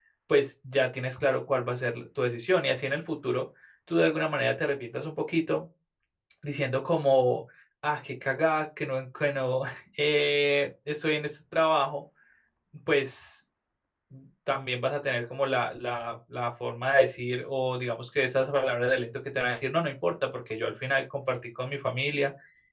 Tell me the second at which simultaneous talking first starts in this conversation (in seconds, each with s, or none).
none